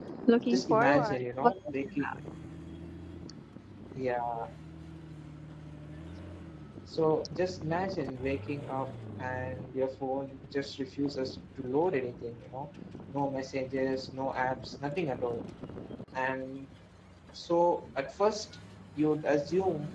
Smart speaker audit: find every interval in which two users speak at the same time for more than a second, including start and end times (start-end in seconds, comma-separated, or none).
0.5-2.1